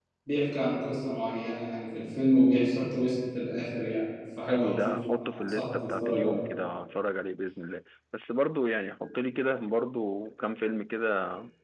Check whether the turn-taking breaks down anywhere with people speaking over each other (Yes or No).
Yes